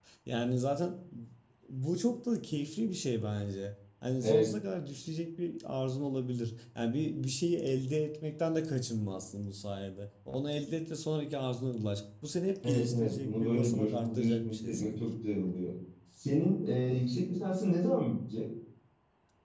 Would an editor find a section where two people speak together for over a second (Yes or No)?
Yes